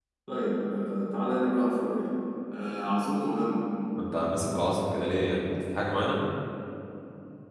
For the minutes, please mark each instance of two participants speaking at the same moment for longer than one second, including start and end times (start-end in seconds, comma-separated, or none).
none